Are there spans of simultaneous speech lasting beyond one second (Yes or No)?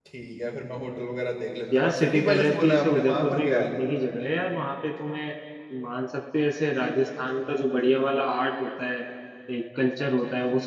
Yes